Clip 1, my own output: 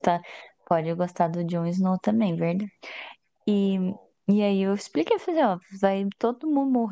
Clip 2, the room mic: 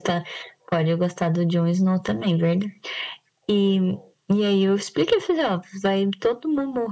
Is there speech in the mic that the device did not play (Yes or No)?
No